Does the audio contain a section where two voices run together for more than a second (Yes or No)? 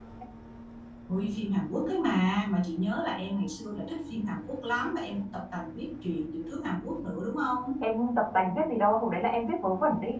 No